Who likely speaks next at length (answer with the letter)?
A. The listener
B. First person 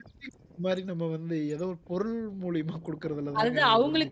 A